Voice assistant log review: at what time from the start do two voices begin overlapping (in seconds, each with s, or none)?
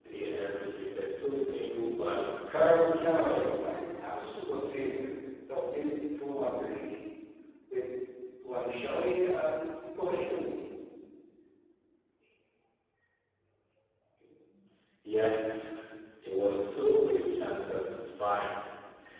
2.5 s